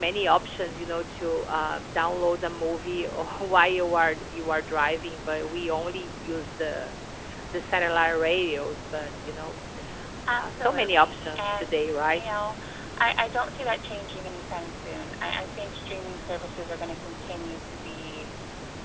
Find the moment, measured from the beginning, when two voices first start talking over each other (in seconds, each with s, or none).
10.4 s